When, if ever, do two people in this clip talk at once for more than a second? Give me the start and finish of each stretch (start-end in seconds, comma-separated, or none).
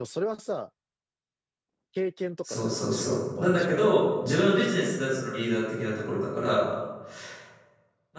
2.4-3.8